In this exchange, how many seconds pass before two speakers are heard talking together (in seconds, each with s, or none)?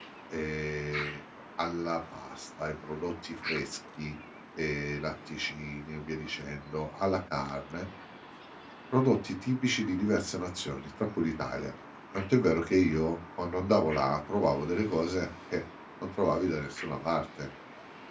none